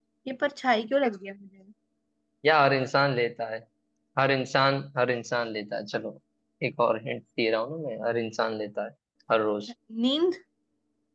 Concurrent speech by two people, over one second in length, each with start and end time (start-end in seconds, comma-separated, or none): none